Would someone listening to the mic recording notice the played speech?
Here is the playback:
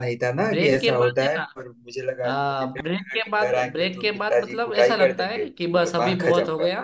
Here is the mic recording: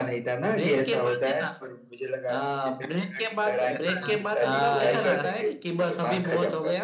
Yes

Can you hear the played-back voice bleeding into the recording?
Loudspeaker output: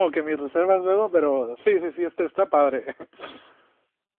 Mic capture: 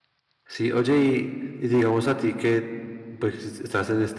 No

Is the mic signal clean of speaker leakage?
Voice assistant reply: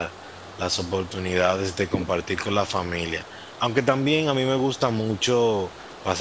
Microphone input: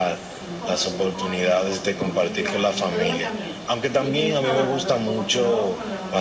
No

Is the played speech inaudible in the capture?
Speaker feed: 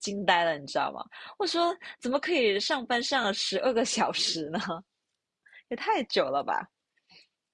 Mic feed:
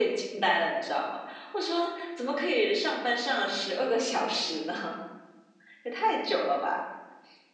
No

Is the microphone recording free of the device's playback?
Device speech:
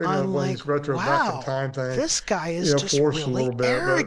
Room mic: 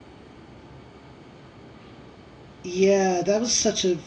Yes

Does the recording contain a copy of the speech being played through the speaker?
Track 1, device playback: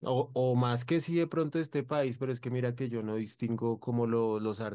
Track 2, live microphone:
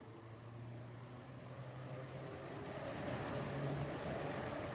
No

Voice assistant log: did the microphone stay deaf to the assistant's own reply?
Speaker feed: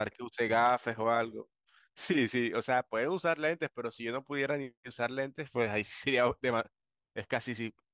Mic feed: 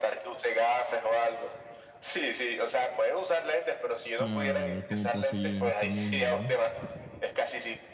No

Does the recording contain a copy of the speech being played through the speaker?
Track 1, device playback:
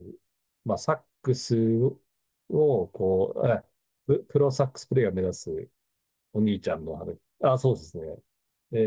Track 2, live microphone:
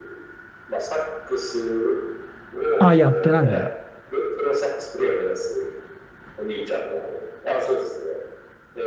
Yes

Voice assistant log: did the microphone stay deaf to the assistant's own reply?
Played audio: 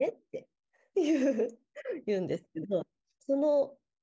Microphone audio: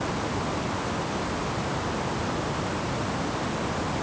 Yes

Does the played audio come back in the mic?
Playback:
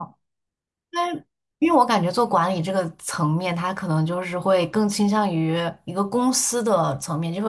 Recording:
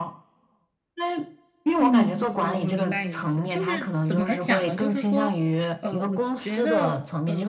Yes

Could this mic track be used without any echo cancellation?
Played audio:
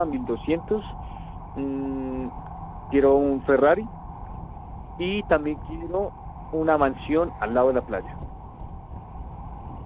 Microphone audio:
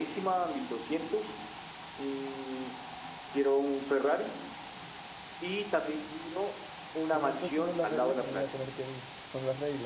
No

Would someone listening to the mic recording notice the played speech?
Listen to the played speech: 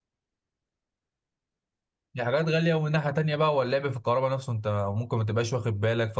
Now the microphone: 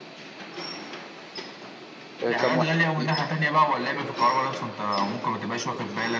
Yes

